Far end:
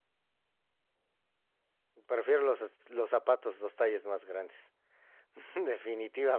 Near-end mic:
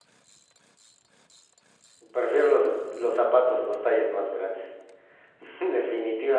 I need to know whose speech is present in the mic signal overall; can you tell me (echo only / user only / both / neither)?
echo only